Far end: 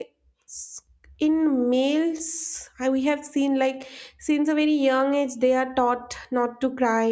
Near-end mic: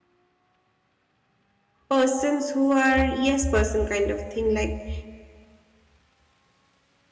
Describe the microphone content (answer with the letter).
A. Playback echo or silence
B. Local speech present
B